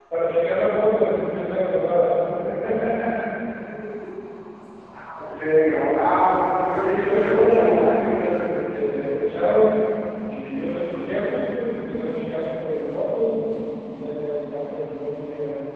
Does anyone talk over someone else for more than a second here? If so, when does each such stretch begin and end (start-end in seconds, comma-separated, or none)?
6.8-8.3